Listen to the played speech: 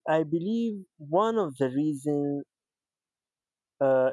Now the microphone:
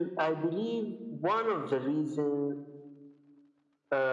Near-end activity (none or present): none